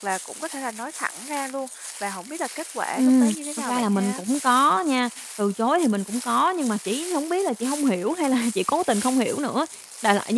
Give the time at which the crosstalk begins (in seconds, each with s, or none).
3.0 s